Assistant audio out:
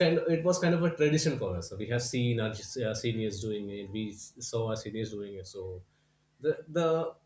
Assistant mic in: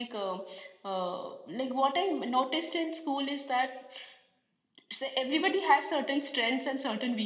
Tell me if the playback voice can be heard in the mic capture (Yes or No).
No